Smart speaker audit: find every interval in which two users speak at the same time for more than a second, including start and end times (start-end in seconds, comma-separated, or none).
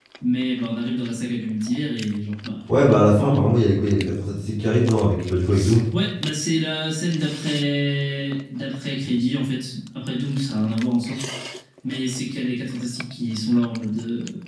none